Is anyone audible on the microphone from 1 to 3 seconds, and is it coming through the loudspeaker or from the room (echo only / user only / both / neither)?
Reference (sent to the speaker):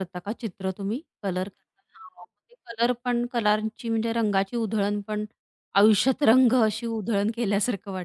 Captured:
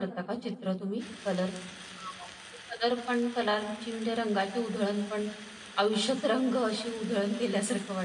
echo only